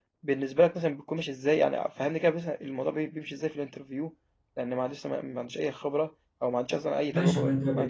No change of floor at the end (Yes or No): No